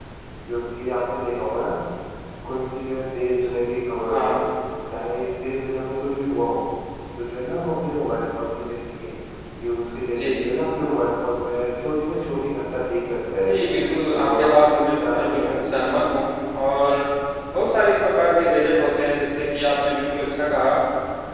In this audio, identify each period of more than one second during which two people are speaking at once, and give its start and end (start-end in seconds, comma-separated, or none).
14.2-15.8